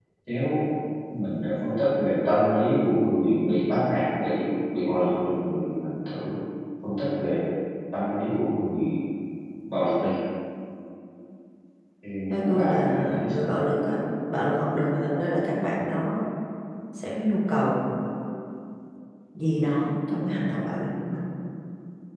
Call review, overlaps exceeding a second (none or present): present